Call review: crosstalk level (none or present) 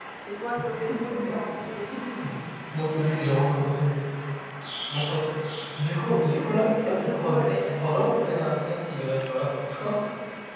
present